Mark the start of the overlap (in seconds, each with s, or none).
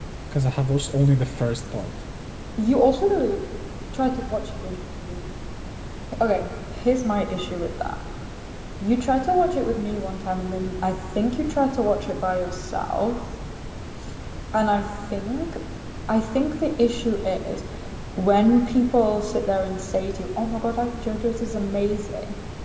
none